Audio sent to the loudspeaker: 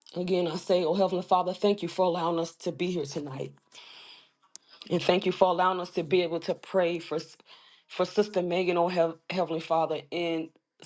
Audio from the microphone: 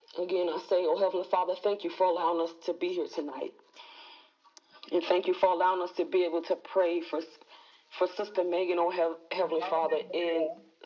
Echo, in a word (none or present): present